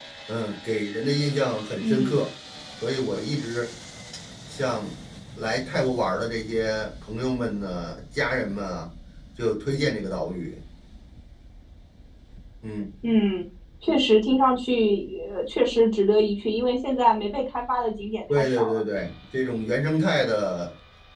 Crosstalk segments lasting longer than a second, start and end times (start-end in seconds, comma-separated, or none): none